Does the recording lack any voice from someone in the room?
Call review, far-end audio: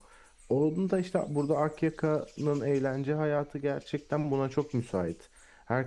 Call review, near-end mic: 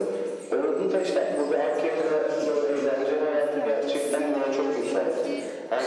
No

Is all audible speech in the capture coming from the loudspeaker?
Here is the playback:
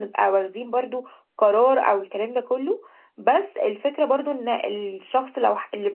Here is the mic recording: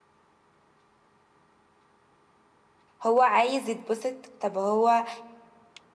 No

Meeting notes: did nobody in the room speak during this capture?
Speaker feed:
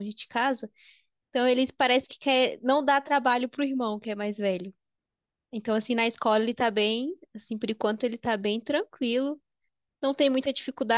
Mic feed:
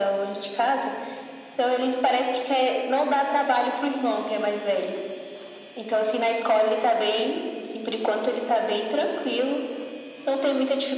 Yes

